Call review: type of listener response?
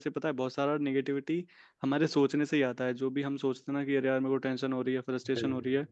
listening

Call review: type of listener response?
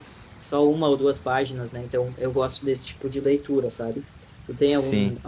listening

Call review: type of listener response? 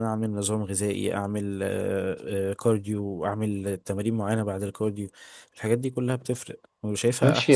taking over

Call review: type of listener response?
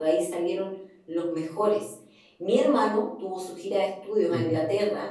listening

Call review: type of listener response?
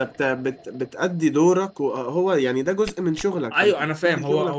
taking over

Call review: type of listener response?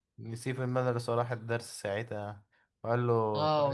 taking over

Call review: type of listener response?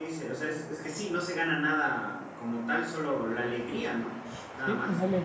taking over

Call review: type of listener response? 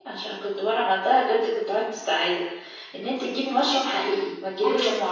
taking over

